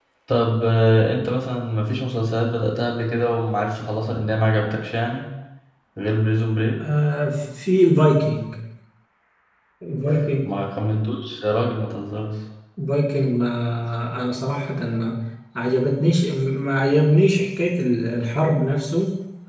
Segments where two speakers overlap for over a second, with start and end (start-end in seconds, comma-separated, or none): none